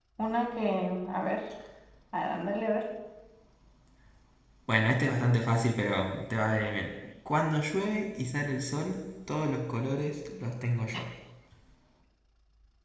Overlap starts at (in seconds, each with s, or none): none